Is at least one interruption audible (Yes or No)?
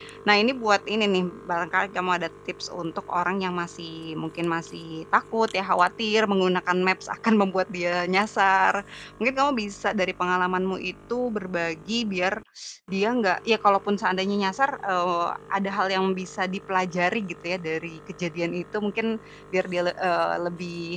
No